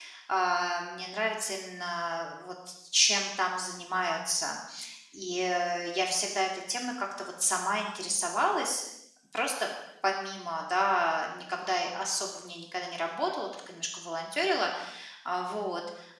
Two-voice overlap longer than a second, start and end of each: none

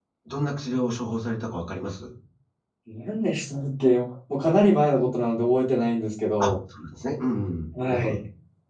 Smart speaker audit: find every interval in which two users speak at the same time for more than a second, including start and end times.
none

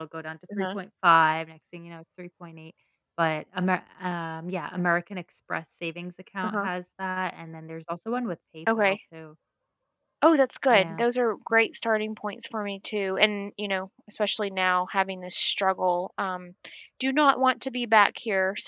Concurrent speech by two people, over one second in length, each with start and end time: none

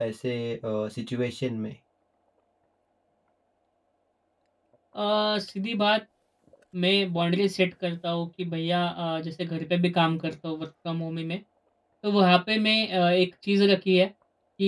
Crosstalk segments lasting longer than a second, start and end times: none

